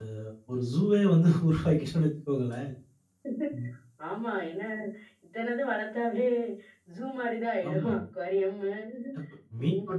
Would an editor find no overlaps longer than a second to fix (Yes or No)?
Yes